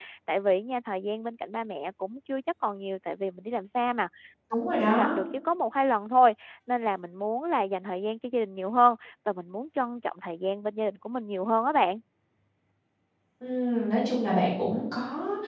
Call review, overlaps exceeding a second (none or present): none